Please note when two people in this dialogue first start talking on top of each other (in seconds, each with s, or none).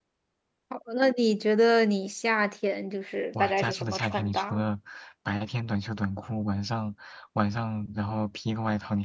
3.4 s